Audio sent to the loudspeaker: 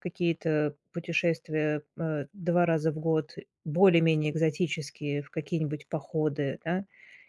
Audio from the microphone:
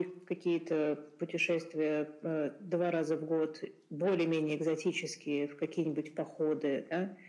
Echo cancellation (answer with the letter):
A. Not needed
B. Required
B